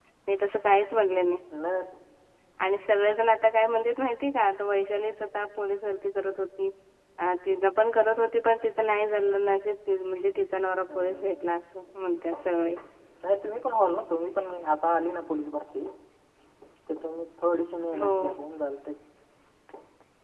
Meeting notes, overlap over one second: none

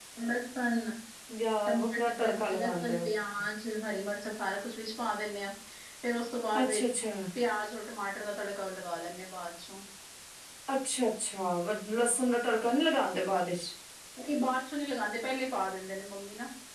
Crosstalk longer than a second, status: present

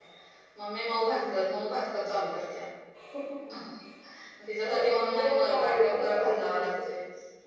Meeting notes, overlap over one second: present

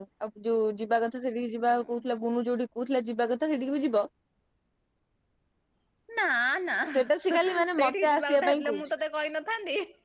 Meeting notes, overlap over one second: present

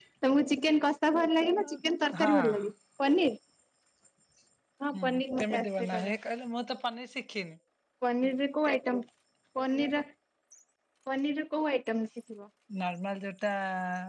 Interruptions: present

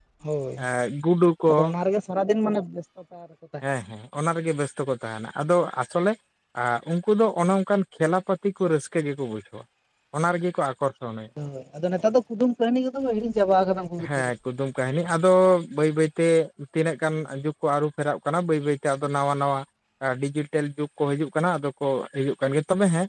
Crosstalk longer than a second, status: none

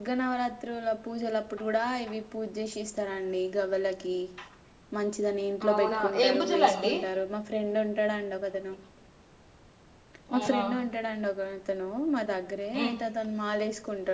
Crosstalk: present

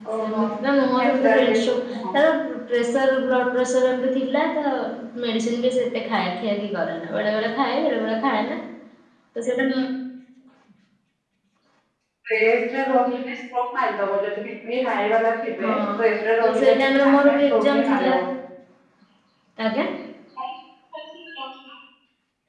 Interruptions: present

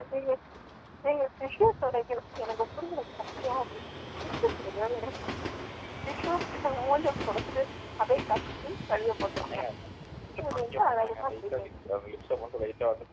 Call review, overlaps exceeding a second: present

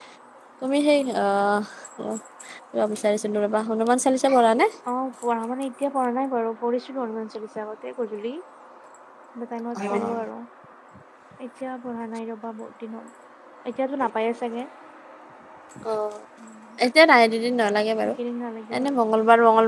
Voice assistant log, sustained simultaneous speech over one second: none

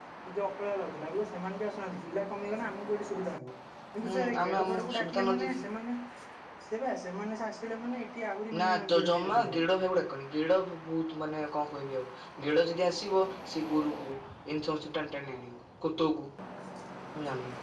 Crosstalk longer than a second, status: present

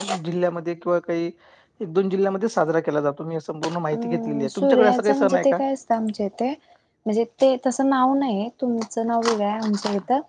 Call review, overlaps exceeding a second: present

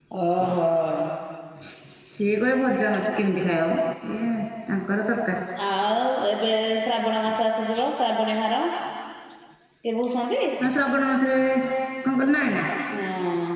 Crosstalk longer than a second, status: none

